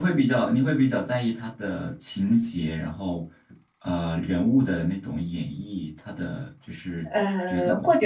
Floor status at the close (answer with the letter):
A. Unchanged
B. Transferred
B